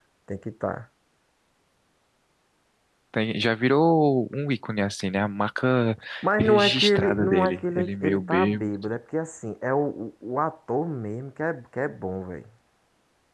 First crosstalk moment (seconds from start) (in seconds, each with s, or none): 6.4 s